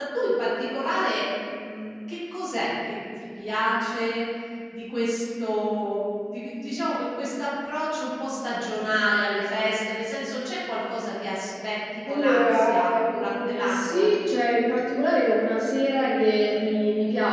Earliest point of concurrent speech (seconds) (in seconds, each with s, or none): 12.1 s